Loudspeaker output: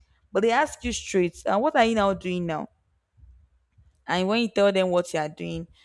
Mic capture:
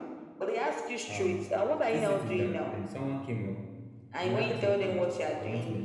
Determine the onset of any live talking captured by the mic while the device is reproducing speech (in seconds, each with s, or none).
1.1 s